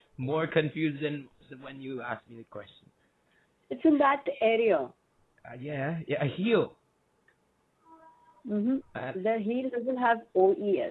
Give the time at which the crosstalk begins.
none

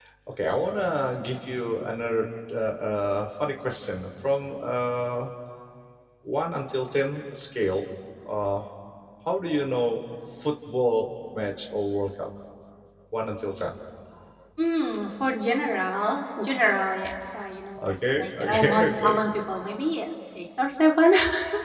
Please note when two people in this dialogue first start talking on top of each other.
17.8 s

